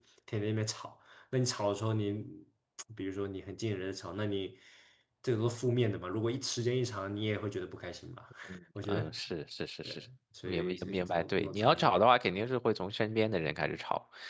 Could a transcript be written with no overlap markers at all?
No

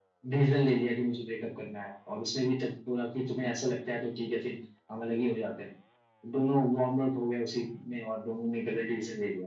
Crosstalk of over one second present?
No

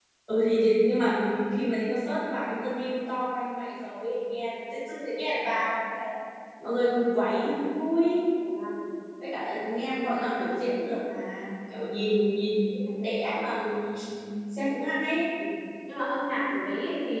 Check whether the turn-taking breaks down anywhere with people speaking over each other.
No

